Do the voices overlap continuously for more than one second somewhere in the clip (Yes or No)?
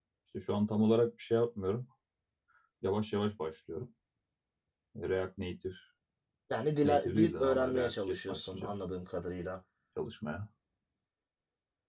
Yes